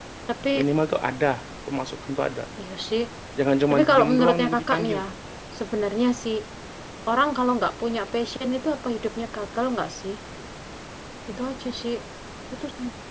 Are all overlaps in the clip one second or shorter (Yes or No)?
No